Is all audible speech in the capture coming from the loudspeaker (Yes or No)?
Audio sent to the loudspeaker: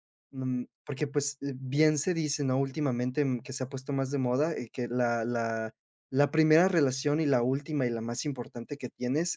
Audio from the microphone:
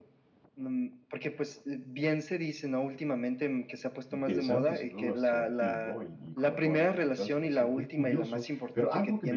No